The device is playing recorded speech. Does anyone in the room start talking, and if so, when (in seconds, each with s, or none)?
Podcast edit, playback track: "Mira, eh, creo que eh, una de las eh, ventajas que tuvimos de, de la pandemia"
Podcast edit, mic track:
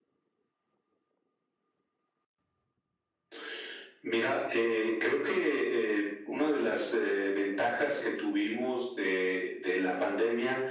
none